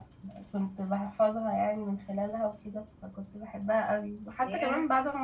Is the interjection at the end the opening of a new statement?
No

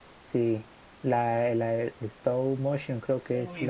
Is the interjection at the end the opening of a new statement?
Yes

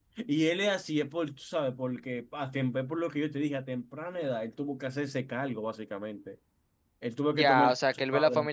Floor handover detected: Yes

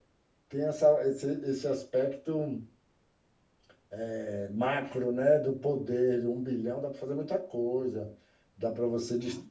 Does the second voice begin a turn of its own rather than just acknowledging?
No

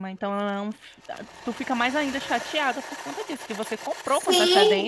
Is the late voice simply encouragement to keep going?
No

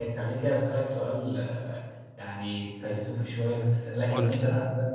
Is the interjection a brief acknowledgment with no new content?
Yes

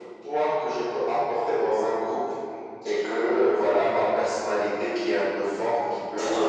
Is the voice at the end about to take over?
No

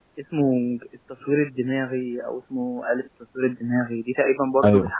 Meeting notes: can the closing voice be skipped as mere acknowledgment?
Yes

